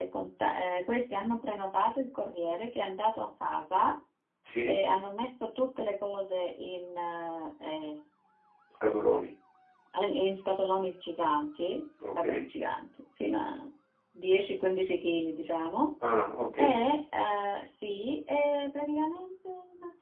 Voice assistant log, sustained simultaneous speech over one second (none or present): none